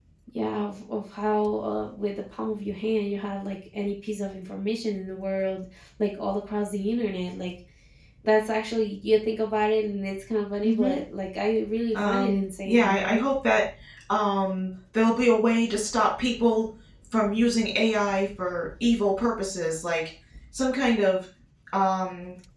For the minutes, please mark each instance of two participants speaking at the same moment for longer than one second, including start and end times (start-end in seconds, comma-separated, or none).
12.0-13.3